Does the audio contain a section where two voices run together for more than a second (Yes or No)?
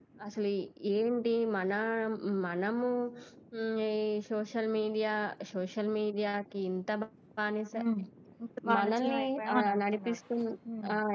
Yes